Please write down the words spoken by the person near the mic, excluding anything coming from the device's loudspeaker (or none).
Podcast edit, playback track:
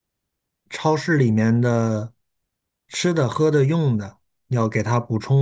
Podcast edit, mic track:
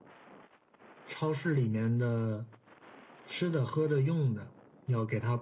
none